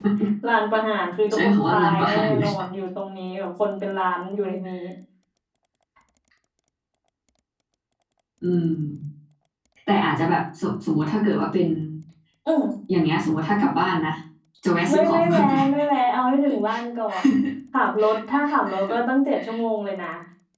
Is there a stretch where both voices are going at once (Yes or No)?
Yes